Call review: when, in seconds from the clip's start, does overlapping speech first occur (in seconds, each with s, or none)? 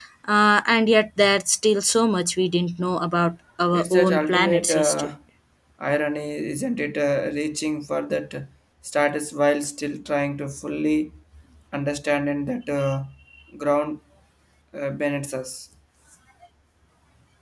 3.7 s